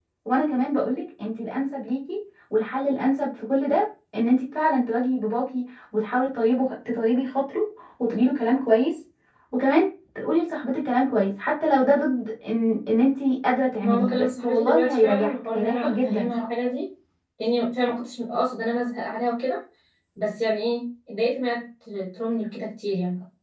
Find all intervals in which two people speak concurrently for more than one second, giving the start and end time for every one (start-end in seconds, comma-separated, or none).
13.8-16.3